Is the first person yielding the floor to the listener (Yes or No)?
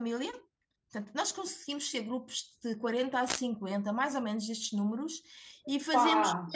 No